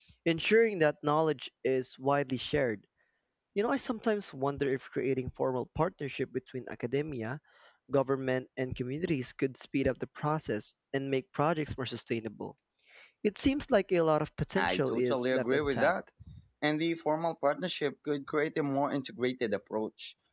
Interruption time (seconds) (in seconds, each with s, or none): 14.6 s